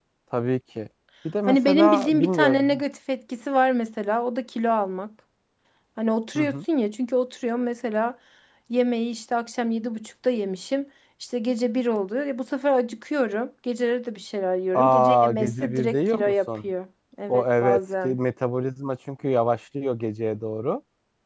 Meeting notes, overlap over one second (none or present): present